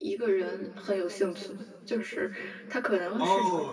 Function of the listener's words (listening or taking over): taking over